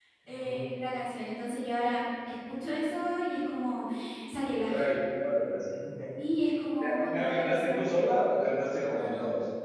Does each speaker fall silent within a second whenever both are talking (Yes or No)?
No